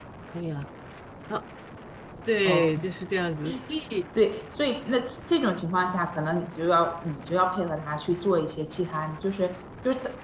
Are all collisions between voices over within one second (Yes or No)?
Yes